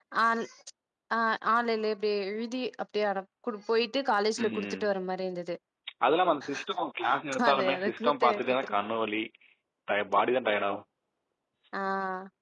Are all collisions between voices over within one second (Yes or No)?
No